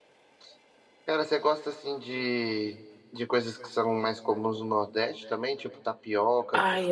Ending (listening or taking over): taking over